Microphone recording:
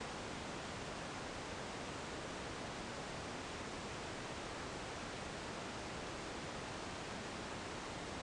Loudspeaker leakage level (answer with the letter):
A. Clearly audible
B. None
B